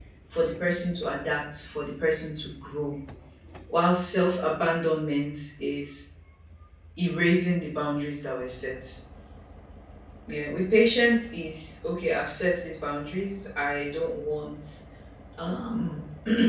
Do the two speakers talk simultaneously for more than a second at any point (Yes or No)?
No